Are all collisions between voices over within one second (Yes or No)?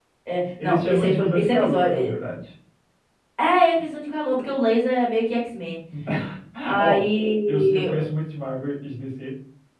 No